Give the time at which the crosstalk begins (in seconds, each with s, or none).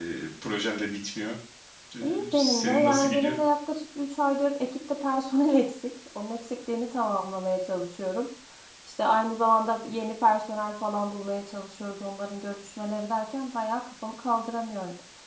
2.0 s